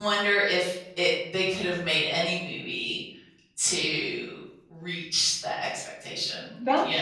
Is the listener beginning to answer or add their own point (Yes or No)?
Yes